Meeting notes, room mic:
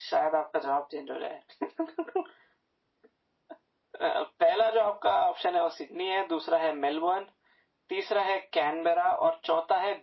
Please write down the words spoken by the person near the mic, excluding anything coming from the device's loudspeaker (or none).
none